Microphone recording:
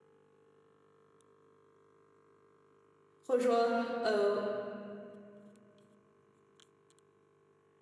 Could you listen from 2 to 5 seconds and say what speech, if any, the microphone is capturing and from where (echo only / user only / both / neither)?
user only